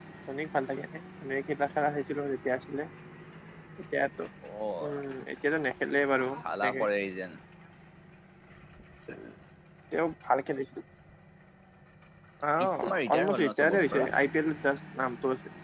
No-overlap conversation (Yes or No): No